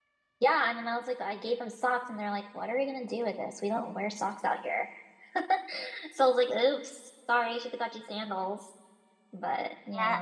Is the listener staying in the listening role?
No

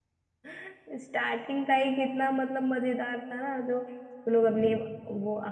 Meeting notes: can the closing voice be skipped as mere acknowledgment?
Yes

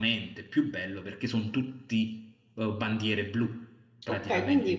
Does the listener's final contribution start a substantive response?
Yes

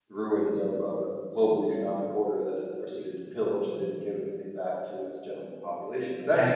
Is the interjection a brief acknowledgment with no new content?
No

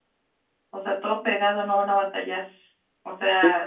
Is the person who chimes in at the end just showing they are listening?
Yes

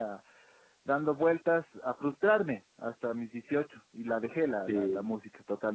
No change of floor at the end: Yes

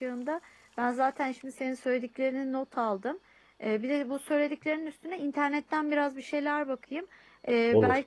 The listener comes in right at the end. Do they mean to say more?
No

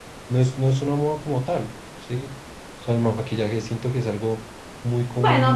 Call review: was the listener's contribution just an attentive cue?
No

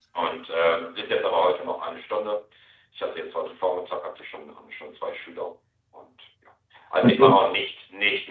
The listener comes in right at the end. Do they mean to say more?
No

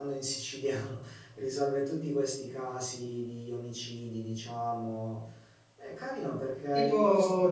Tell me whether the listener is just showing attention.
No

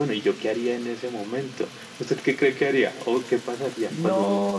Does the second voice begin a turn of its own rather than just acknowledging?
Yes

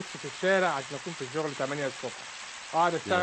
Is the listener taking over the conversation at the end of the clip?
No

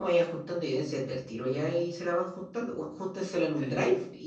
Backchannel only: Yes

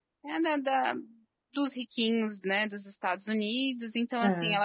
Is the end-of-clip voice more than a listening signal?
No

